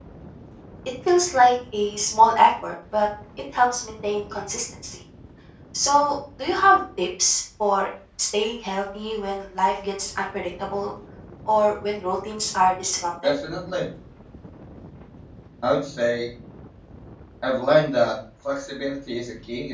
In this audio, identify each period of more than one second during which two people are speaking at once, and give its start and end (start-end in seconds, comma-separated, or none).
none